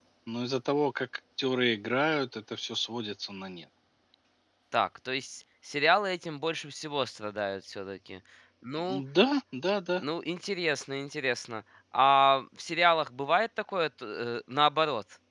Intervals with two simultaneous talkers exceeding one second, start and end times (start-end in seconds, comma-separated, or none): none